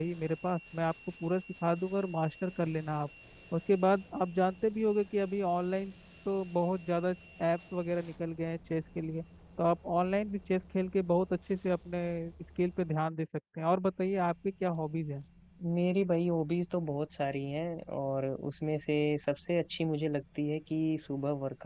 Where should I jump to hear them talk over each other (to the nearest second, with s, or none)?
none